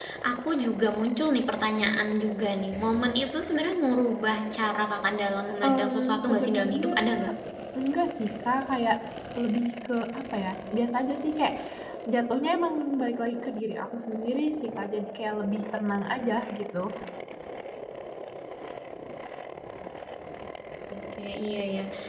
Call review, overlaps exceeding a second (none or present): present